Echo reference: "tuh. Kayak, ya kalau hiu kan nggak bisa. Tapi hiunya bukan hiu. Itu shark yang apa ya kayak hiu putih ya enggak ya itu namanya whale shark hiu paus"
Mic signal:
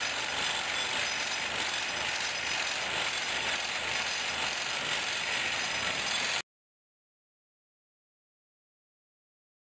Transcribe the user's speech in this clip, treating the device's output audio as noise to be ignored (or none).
none